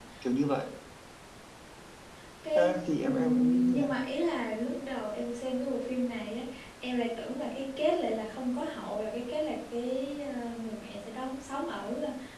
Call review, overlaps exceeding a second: present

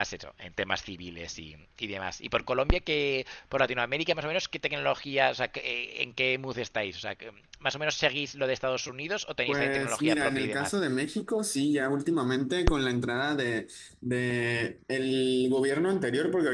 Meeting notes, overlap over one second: present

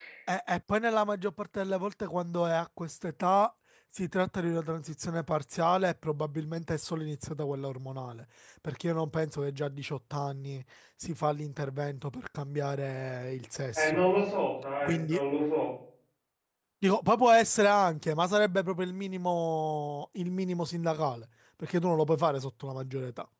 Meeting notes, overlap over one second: none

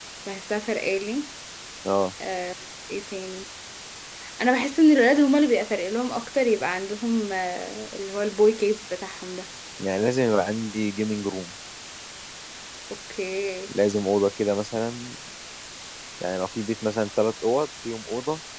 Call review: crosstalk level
none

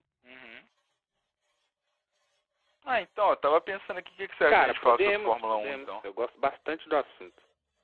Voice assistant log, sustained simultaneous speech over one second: present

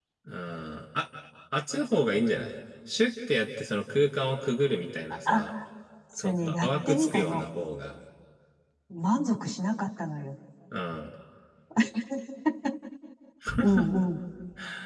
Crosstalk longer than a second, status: present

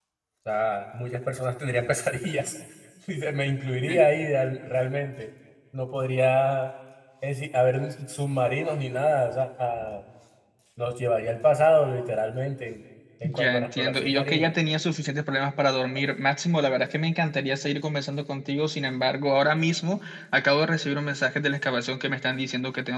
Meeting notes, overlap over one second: present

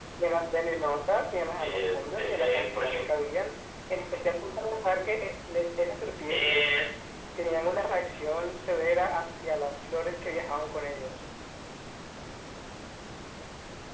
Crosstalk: present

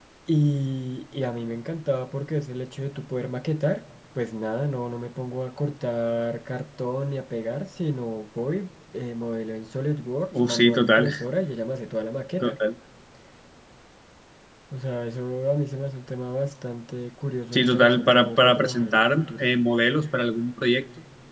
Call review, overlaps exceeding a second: present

